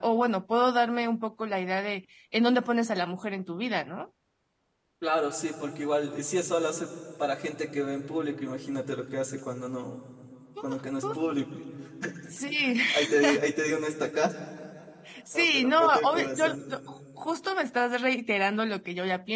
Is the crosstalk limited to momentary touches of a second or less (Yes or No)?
No